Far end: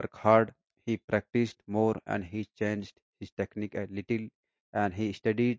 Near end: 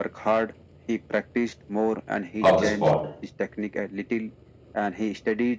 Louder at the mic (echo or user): user